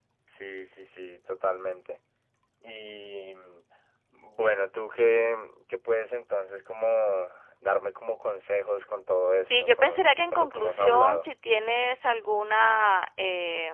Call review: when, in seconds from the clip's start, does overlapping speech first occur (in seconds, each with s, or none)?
9.2 s